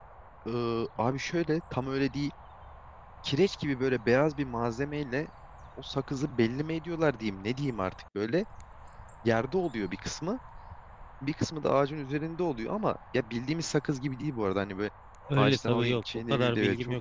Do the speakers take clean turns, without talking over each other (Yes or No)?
No